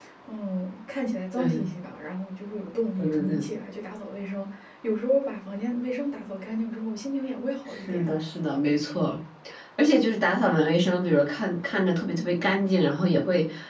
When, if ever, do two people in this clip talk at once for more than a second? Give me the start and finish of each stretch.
none

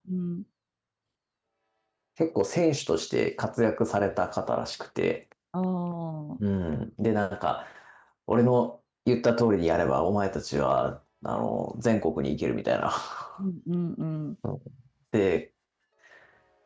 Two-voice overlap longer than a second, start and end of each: none

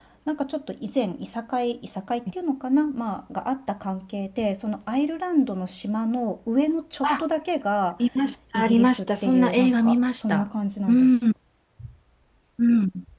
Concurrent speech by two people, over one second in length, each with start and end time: 8.5-10.4

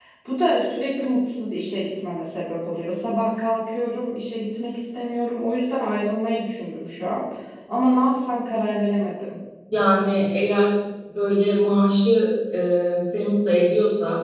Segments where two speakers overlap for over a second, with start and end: none

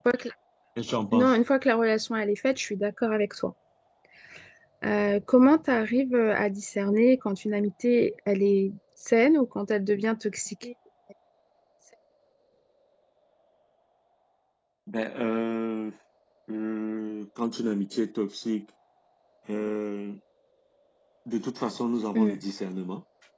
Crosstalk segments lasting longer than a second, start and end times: none

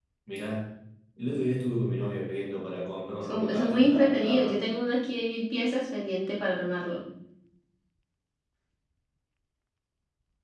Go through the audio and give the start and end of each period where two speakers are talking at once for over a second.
3.2-4.6

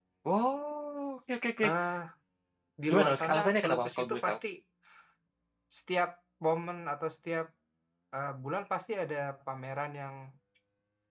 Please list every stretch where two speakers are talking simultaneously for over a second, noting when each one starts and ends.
2.9-4.4

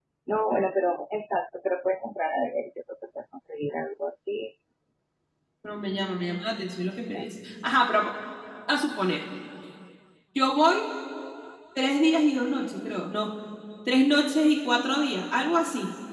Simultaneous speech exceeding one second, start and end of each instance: none

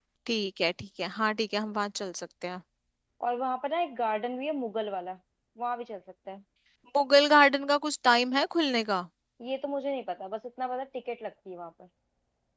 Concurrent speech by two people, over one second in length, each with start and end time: none

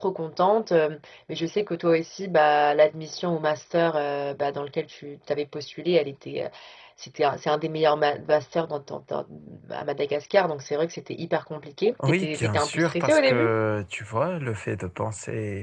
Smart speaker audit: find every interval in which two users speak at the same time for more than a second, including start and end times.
12.1-13.5

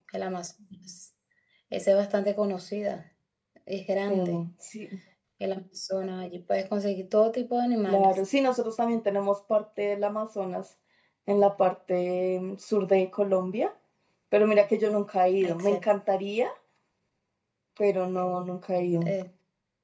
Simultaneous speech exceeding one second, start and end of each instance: none

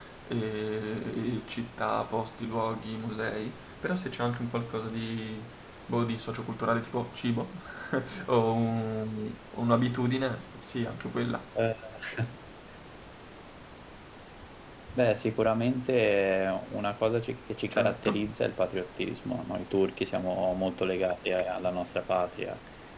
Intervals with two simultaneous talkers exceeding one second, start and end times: none

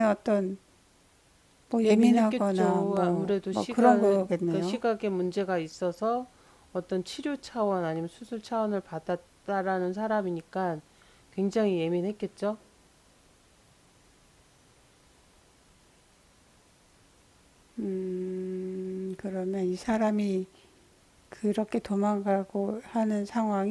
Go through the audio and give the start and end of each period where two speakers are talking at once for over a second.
1.8-4.8

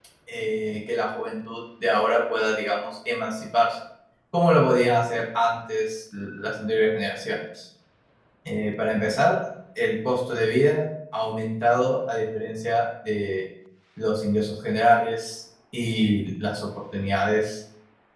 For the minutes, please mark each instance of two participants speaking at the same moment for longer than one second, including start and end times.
none

